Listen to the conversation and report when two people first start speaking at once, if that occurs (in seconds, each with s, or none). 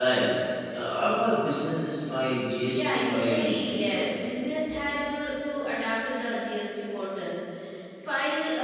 2.7 s